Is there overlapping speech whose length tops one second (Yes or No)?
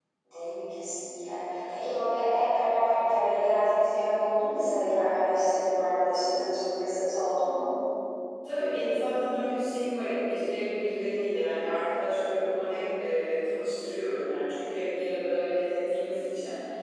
No